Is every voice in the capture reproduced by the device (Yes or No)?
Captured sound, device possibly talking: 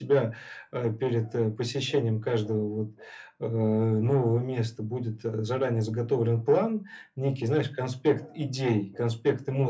Yes